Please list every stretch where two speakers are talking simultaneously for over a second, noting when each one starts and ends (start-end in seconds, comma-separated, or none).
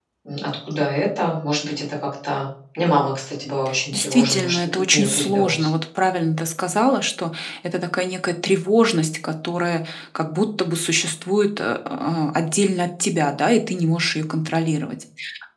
3.9-5.7